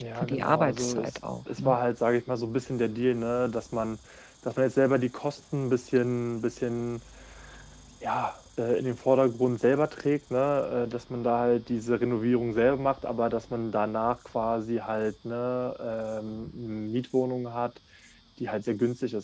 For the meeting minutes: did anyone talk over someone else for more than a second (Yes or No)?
Yes